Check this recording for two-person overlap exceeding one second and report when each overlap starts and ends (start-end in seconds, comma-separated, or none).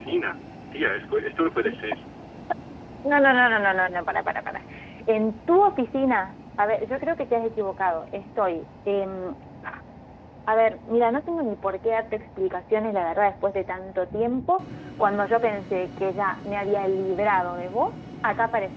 none